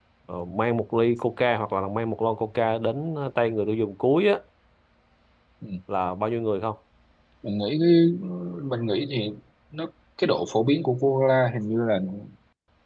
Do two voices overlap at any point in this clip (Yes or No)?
No